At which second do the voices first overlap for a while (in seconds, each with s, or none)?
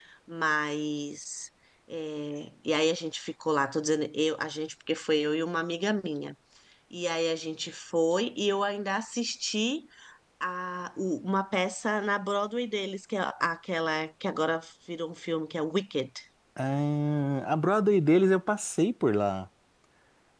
none